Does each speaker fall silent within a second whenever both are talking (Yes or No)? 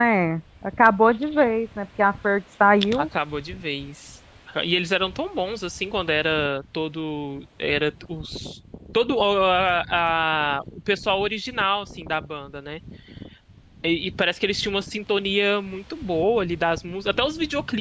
Yes